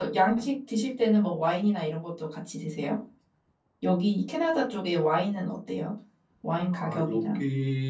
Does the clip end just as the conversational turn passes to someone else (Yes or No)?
Yes